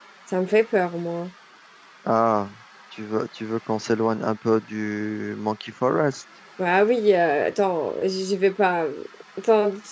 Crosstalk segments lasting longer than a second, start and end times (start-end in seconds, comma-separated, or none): none